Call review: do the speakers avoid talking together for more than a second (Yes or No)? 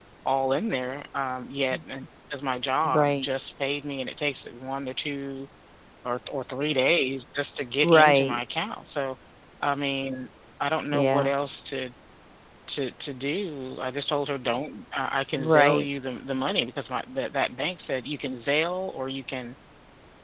Yes